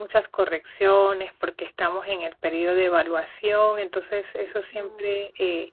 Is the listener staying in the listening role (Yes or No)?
Yes